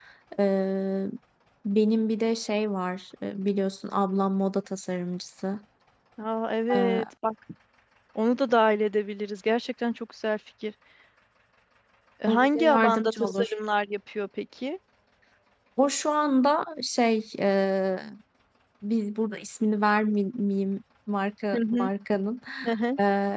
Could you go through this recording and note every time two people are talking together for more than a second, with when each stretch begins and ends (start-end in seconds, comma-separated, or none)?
12.3-13.5